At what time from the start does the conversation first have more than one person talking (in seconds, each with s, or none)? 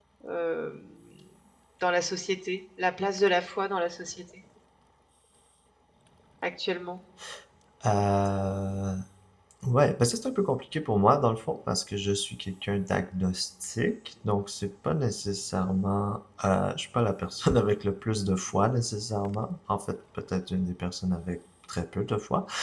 none